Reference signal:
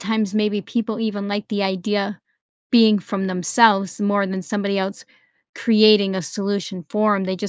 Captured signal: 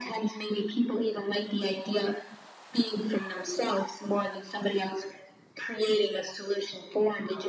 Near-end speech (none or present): none